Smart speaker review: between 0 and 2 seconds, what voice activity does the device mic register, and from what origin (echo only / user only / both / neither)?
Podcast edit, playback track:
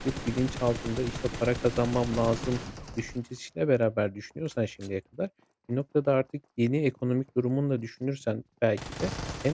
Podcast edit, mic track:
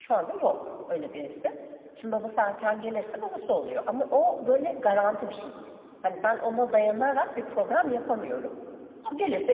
user only